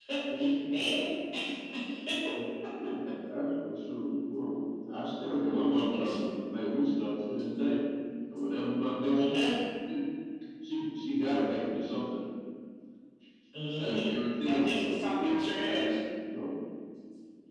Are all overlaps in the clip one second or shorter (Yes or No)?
No